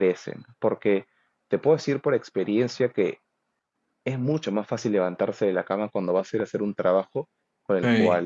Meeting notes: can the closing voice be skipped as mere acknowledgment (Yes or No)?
Yes